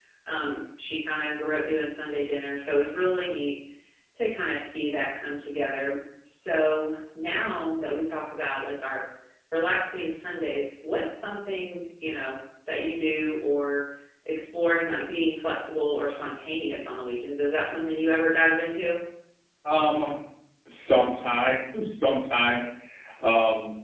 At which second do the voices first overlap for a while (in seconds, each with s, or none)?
none